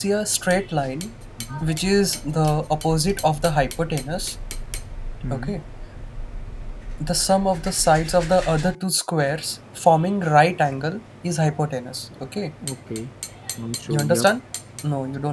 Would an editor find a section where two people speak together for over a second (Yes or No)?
No